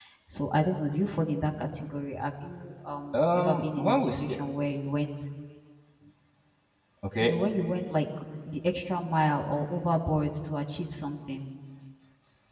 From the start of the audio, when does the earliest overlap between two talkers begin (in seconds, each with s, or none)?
3.1 s